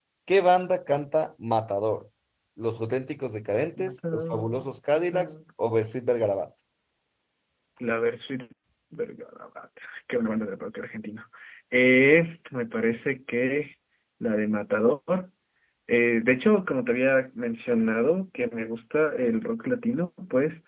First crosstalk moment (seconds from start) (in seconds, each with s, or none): 3.8 s